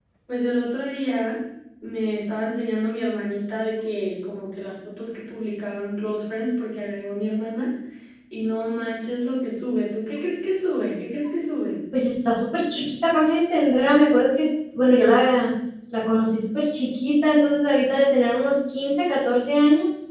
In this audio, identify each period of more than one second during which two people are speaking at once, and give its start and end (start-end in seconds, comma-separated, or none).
none